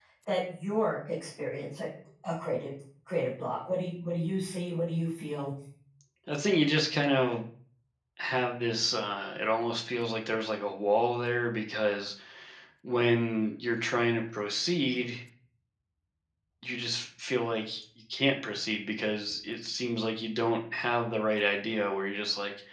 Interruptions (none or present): none